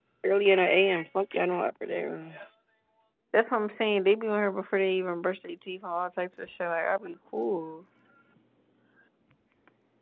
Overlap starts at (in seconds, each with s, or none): none